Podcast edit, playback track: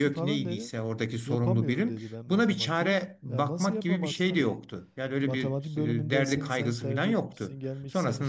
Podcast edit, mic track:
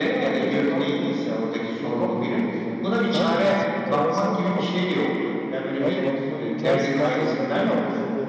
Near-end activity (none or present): present